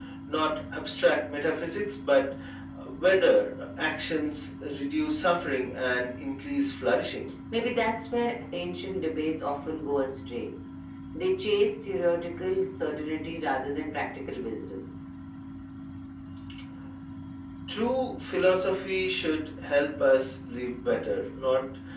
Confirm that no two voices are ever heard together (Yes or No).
Yes